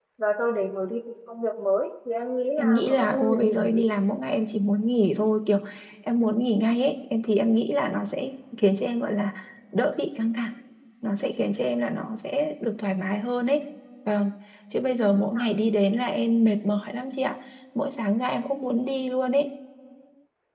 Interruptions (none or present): present